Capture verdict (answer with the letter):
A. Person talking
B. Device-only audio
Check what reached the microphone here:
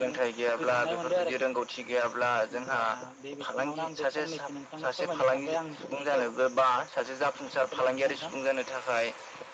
B